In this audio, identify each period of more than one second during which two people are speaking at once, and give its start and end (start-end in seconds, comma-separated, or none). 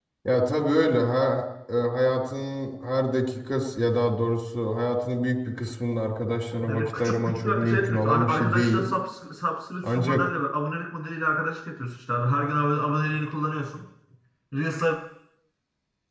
6.7-8.9